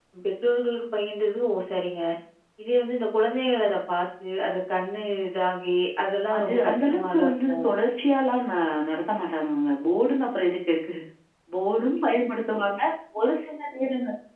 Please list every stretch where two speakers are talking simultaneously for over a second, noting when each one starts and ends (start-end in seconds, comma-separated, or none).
6.4-7.7